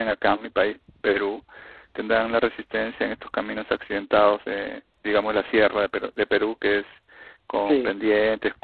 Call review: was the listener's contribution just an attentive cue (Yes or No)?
Yes